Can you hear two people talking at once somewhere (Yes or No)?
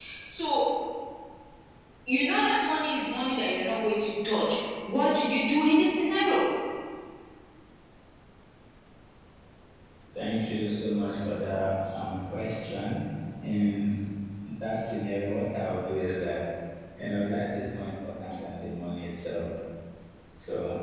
No